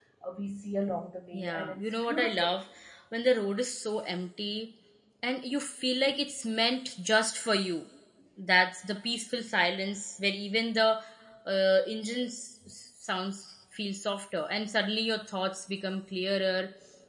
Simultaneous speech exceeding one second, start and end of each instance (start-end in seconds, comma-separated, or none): 1.3-2.5